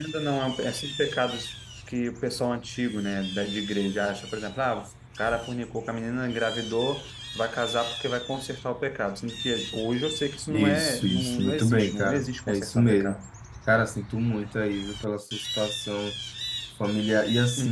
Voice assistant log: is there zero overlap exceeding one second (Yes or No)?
No